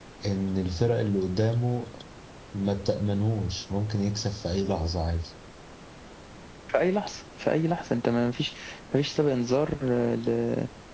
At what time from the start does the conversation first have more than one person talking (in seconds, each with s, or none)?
none